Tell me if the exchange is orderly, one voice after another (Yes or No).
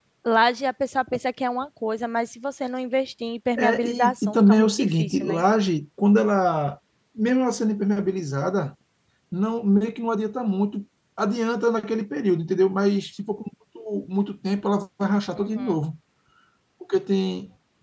No